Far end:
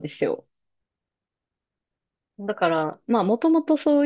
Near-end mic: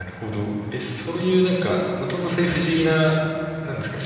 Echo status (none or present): none